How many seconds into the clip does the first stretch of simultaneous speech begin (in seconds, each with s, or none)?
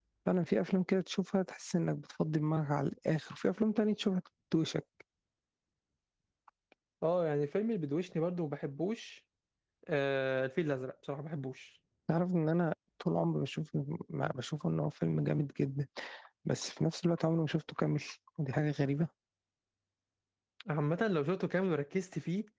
none